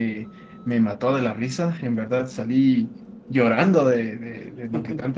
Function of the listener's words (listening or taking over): listening